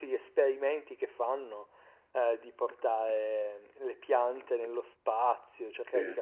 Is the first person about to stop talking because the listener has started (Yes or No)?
No